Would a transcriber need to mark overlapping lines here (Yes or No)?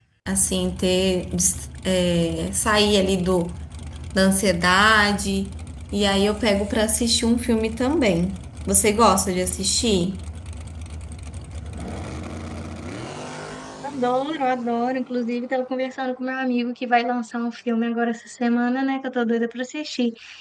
No